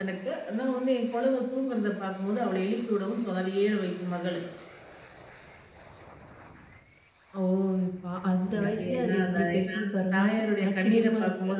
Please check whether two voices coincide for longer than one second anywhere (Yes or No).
Yes